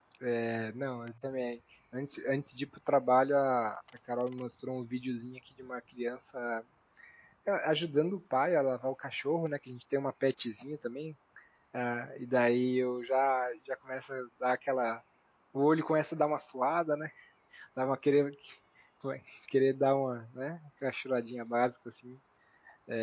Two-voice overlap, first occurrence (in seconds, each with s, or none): none